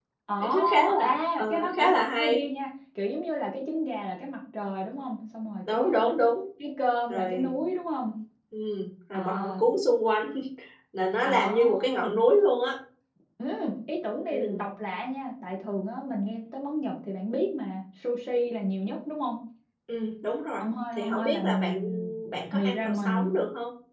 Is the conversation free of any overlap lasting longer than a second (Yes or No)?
No